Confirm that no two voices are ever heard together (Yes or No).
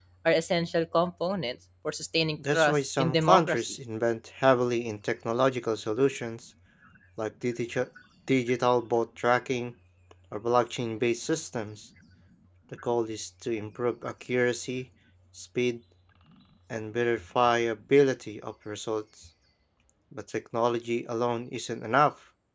No